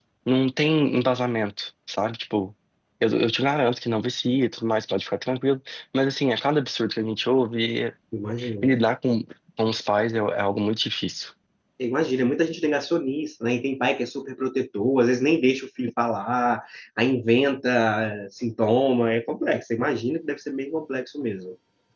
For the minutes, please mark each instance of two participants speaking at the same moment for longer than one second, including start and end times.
none

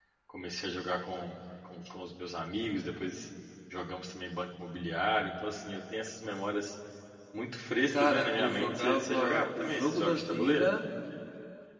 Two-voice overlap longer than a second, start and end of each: 7.9-10.7

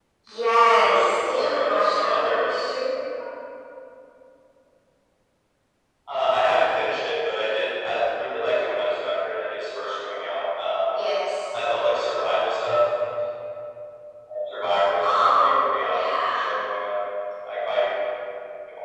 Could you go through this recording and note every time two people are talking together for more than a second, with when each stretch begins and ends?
0.7-2.7, 15.0-16.6

